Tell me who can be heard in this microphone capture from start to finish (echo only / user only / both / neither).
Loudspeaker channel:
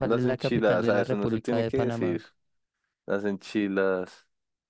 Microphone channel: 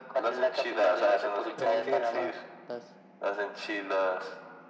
both